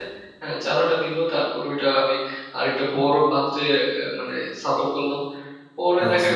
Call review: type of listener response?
taking over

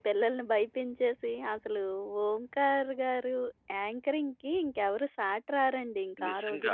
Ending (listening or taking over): taking over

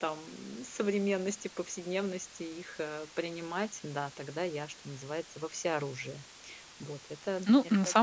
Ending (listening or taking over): taking over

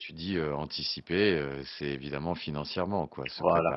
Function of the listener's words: listening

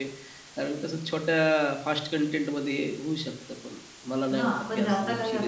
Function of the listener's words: taking over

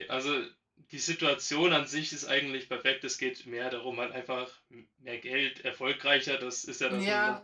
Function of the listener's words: taking over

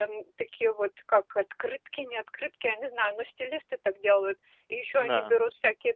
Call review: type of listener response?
listening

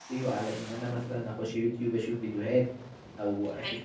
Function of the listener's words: listening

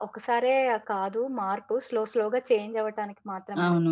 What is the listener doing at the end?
taking over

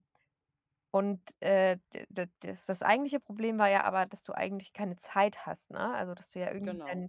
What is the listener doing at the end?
listening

